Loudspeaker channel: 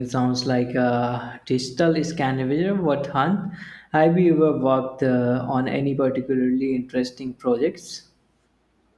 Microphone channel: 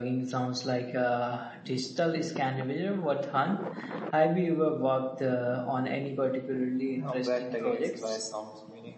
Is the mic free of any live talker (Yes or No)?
No